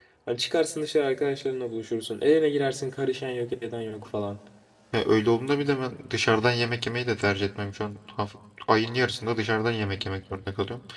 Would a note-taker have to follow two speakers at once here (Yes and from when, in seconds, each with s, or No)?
No